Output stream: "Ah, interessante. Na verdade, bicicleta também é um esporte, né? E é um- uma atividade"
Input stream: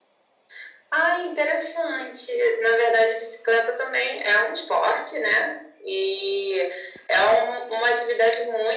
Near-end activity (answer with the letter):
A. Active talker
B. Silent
B